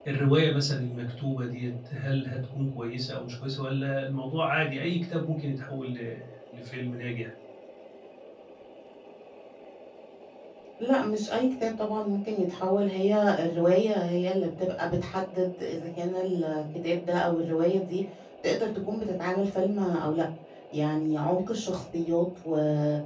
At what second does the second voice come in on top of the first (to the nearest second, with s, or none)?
none